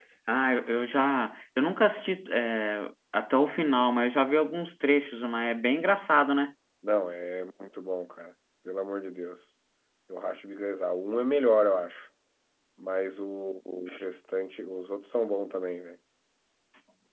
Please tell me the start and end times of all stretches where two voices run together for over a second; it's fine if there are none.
none

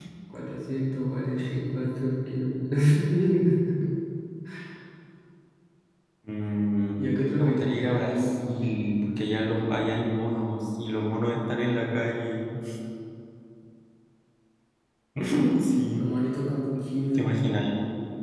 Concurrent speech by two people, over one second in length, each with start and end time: 7.4-8.7

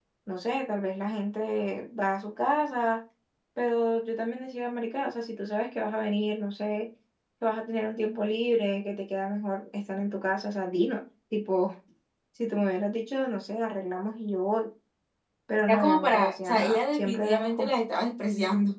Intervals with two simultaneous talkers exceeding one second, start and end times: 15.7-17.7

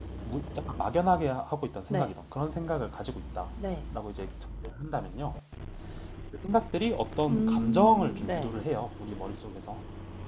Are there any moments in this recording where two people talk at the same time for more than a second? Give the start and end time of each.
7.3-8.5

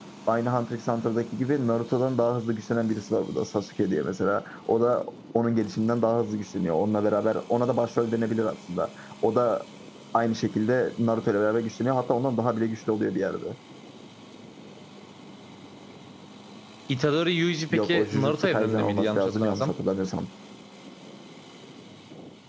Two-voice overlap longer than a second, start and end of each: 17.7-19.7

